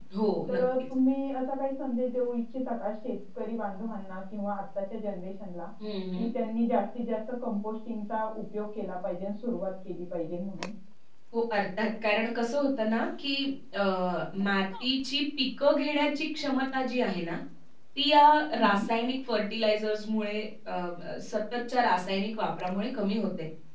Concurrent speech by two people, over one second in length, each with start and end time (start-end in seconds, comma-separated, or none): none